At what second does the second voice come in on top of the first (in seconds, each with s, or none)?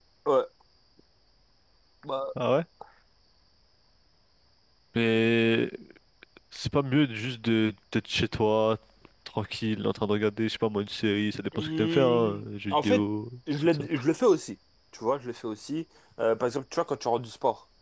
11.5 s